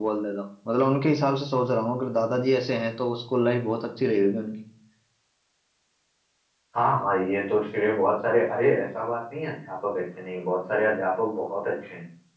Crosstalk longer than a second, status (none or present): none